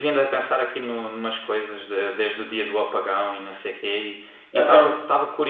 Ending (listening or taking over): listening